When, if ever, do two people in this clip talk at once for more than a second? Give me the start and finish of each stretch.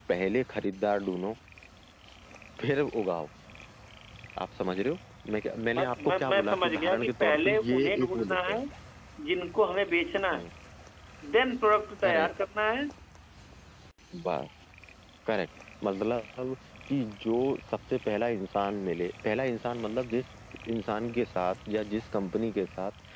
5.8-8.6

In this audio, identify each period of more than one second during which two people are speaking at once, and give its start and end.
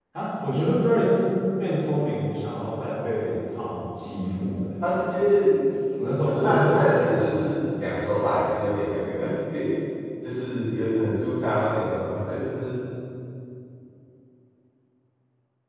6.2-7.6

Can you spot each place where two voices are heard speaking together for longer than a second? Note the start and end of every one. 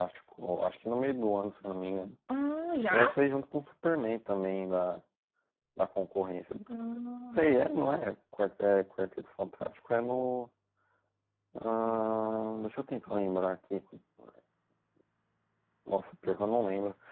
none

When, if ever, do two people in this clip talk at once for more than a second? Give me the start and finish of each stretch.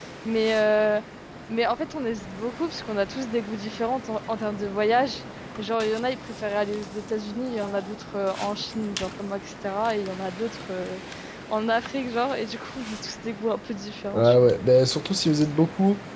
none

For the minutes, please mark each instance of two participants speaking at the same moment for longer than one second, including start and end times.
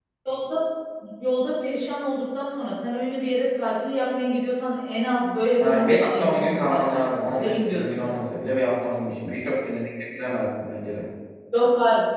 5.6-8.1

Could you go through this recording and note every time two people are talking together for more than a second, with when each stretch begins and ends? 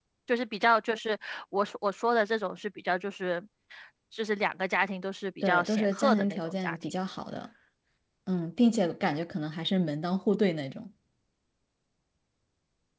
5.4-6.8

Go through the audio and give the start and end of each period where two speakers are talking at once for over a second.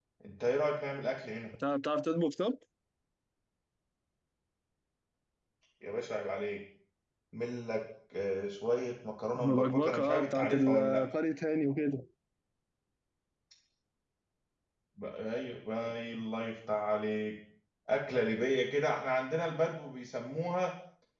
9.4-11.0

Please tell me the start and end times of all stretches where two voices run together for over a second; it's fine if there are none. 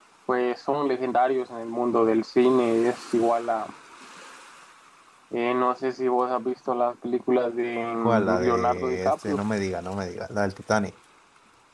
8.0-9.4

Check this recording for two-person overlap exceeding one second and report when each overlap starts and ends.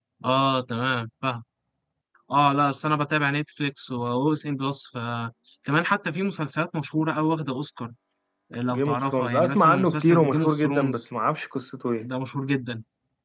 8.7-11.0

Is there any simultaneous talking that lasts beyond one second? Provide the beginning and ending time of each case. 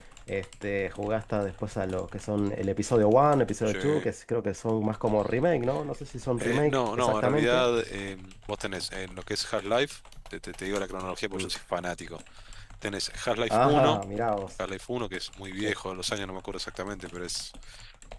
6.4-7.7

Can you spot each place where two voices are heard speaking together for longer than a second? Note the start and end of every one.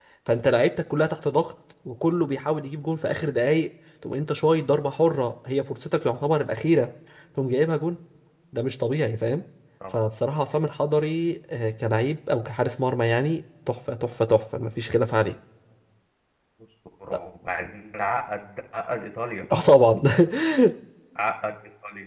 none

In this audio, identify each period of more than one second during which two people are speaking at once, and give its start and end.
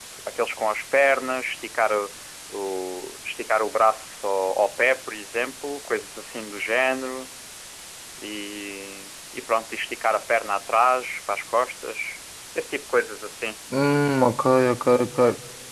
none

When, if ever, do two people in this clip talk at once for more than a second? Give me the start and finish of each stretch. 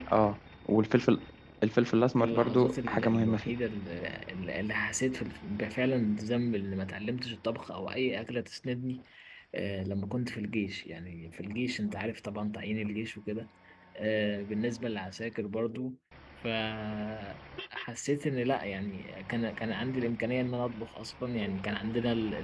2.2-3.5

